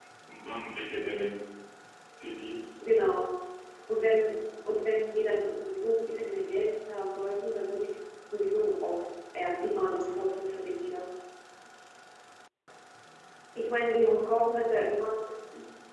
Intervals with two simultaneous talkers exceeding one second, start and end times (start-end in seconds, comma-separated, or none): none